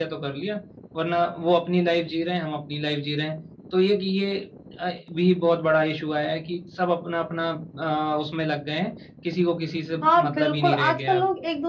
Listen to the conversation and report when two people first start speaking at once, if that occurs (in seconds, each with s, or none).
10.0 s